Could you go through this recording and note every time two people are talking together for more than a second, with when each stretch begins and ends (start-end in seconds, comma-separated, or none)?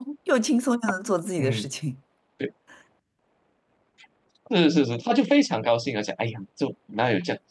none